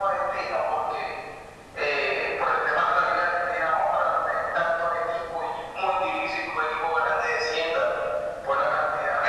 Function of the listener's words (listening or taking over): taking over